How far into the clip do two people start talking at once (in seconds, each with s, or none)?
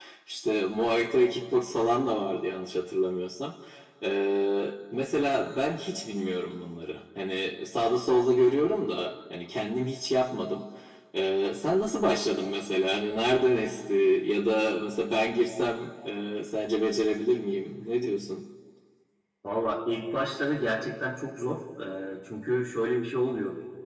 none